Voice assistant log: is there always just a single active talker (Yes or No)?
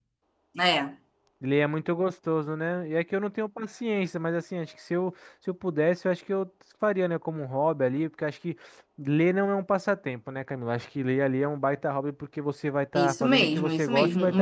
No